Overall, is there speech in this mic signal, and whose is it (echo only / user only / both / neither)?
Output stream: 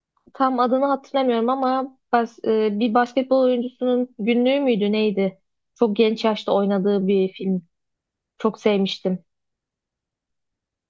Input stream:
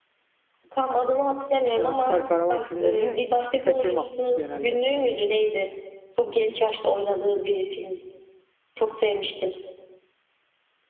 both